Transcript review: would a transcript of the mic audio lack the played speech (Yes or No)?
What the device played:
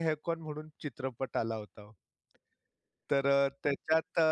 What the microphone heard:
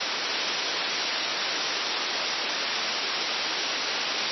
Yes